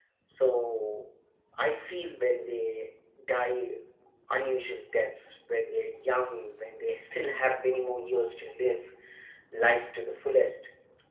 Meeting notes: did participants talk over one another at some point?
No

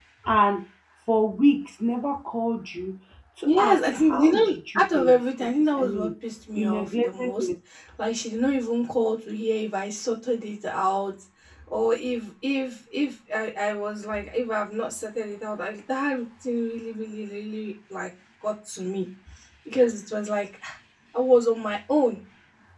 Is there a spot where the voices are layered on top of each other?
Yes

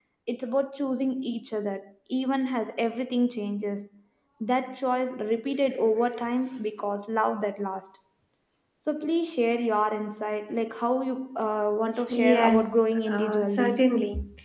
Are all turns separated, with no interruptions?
No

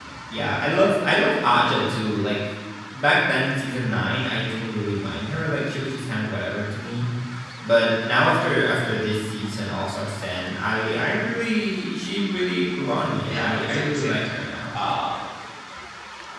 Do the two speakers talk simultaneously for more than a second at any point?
Yes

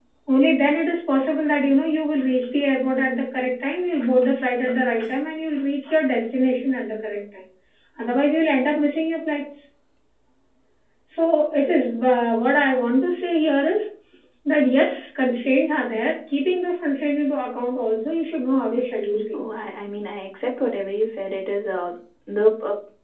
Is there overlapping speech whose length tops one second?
No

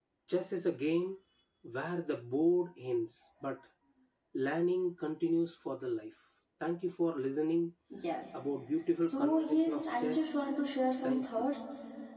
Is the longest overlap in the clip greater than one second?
Yes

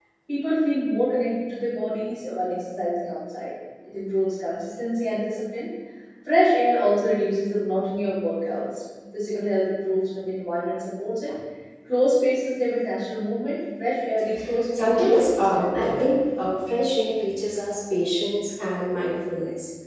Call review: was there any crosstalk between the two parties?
Yes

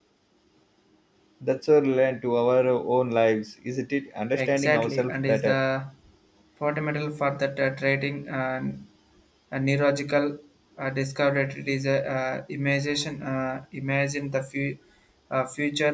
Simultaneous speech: Yes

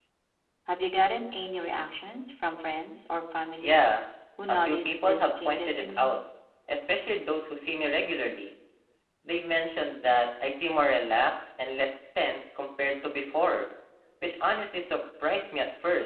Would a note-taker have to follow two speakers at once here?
Yes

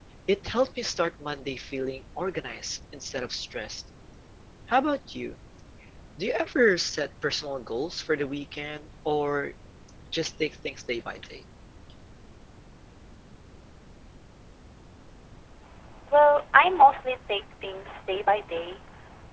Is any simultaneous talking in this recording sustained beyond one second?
No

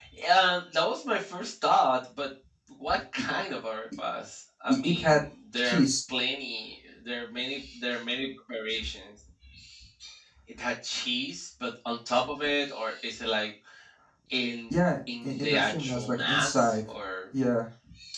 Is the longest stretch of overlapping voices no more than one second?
No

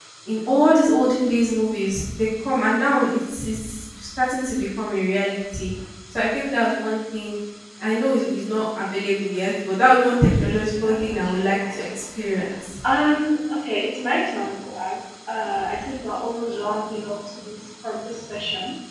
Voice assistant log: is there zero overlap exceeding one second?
No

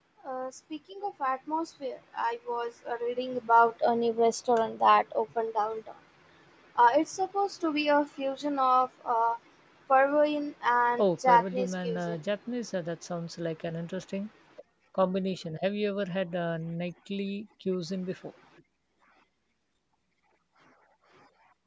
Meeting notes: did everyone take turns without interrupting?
No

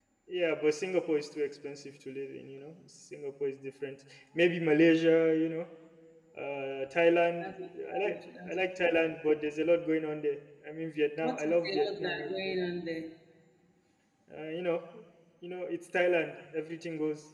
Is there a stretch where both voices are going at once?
Yes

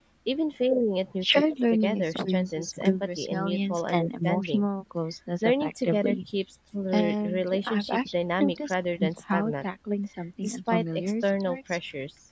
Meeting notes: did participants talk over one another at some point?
Yes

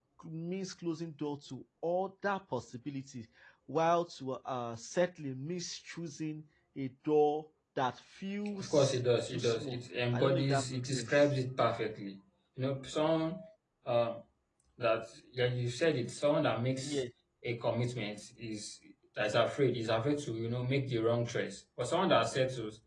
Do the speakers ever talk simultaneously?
Yes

